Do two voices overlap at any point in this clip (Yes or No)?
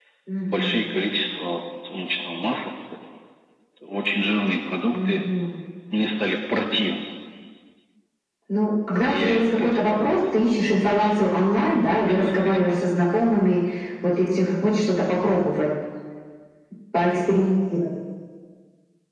Yes